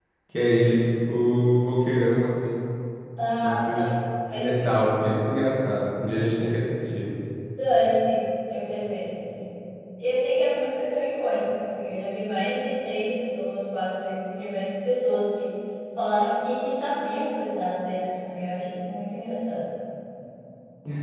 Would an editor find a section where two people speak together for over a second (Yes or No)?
No